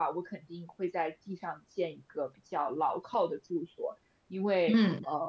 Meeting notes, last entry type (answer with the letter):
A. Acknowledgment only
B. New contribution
A